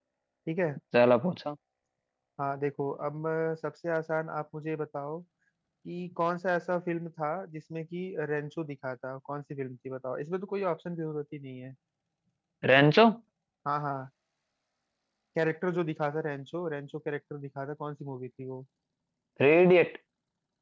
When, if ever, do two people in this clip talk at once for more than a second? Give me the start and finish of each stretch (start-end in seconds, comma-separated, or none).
none